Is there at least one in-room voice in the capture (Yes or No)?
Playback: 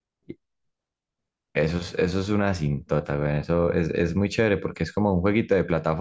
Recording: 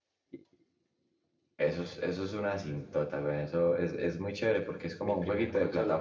Yes